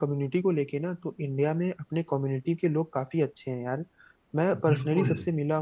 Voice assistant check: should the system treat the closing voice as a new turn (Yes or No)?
No